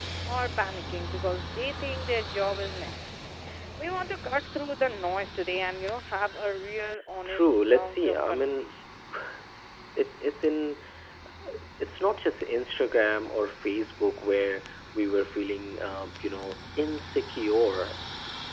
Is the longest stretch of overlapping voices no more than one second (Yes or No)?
No